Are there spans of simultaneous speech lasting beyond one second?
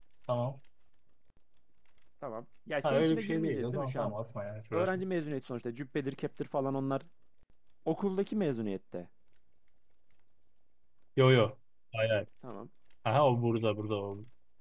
Yes, from 2.8 s

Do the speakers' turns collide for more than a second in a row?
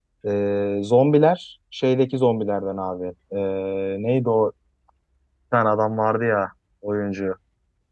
No

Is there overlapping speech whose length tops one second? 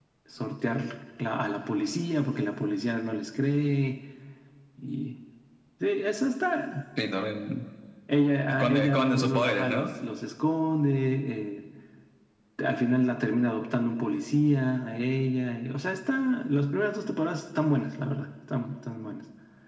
Yes, from 8.5 s

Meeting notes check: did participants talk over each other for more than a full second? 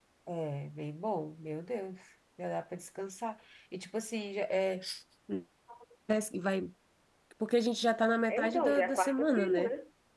Yes, from 8.3 s

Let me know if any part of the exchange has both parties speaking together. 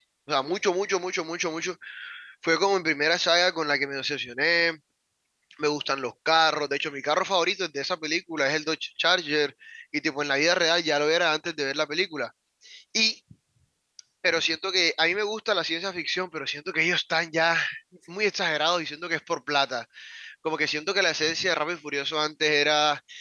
No

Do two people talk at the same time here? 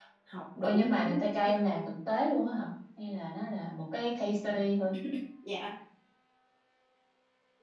Yes, from 0.6 s

